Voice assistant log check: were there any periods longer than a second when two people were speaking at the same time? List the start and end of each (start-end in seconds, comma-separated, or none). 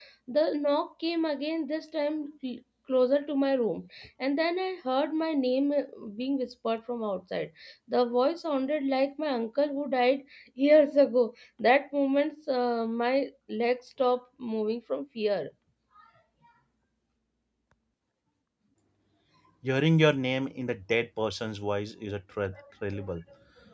none